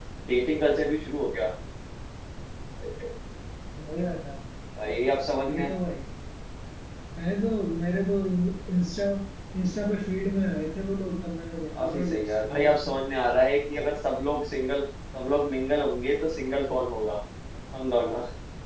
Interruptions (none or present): present